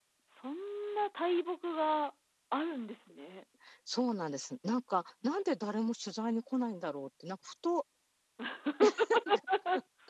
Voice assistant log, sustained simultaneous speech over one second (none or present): none